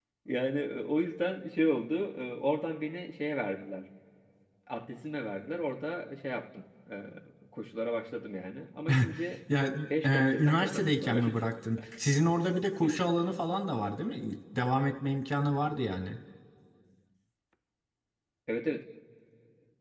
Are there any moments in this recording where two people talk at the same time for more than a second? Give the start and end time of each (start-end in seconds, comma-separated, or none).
10.0-11.4